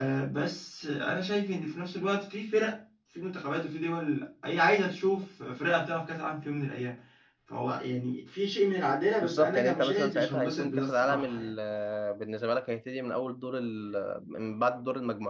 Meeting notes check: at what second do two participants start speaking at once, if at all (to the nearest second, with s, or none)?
9 s